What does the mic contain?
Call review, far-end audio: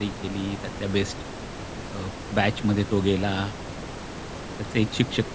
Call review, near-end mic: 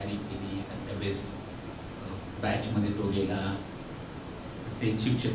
echo only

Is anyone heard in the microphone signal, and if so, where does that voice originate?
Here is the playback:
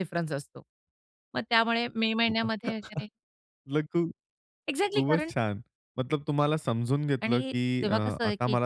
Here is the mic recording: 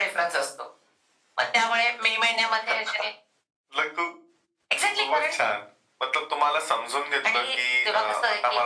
echo only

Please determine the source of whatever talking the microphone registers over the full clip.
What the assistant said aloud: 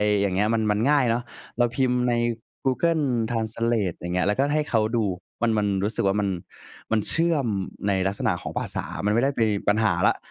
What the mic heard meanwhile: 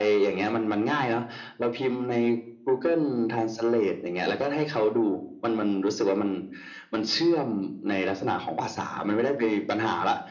echo only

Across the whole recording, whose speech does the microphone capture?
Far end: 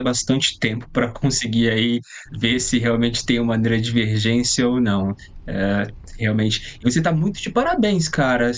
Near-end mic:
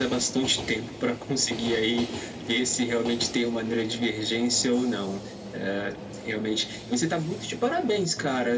echo only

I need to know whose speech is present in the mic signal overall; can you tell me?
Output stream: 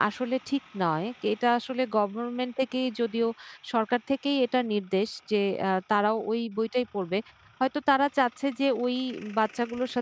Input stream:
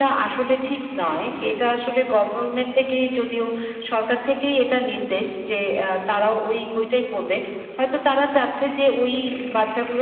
echo only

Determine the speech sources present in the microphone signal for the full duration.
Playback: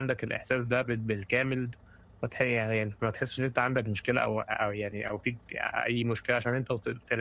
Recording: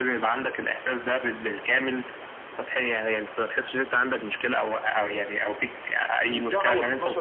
both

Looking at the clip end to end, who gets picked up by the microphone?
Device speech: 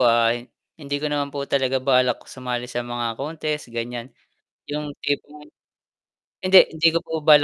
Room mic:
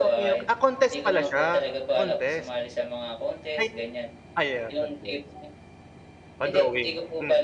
both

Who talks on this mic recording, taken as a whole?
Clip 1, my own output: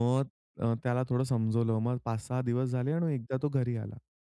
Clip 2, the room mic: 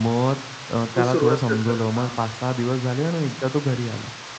both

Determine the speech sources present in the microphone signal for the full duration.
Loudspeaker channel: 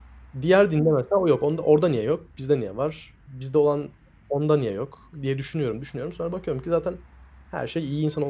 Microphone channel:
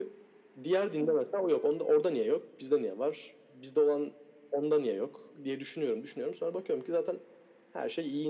echo only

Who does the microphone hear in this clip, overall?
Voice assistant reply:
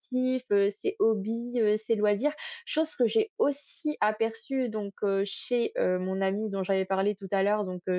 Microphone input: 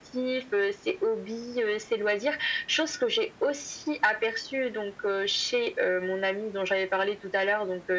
echo only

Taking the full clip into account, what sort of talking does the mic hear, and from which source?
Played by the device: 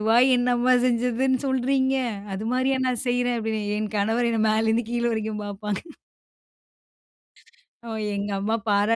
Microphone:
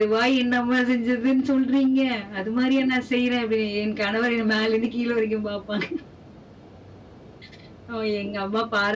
echo only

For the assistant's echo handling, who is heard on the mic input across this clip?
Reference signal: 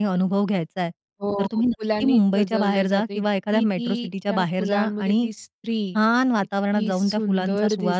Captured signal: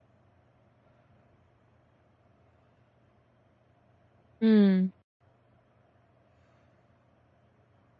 user only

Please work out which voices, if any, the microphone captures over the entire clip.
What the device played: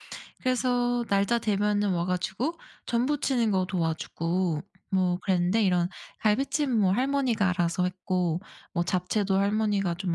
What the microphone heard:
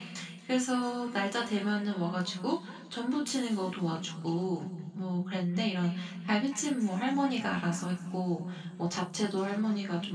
echo only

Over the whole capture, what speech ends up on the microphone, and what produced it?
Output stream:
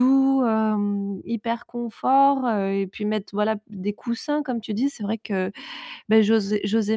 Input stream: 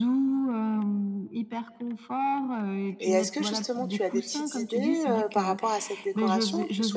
both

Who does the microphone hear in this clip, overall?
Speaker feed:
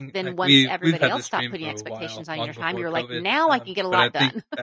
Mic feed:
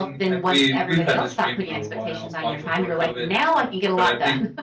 echo only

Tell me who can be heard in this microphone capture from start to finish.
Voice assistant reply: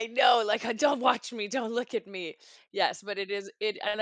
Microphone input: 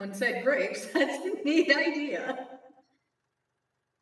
user only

